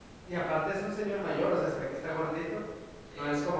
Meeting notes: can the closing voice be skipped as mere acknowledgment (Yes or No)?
Yes